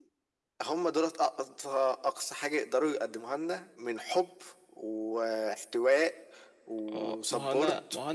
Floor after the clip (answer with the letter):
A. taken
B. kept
A